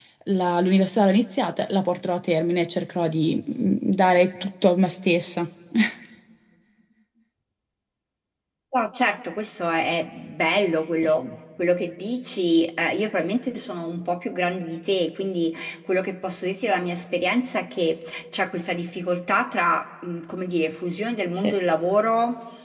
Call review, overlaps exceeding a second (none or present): none